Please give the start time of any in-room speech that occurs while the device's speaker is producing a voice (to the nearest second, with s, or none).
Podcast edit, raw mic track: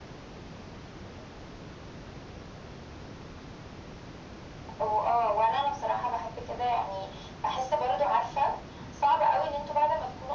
none